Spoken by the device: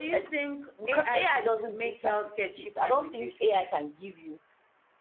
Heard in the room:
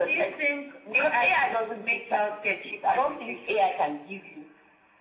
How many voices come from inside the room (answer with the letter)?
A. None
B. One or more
A